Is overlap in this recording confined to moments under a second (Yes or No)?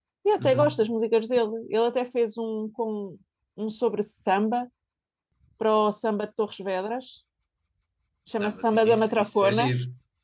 No